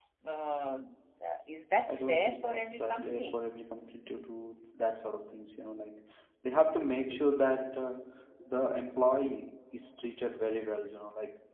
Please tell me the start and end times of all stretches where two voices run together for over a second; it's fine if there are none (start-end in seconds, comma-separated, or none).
1.9-3.4